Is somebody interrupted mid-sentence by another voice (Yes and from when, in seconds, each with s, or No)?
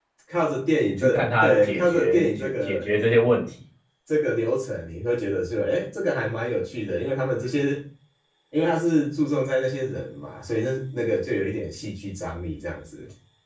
Yes, from 1.0 s